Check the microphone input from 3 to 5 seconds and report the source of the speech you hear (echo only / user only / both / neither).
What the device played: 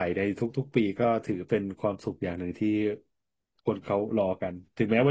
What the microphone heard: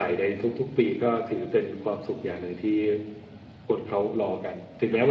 echo only